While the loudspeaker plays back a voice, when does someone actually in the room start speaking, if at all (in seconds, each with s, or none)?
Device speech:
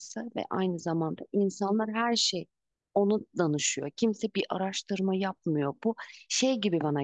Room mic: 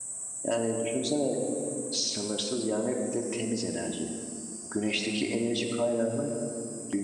0.5 s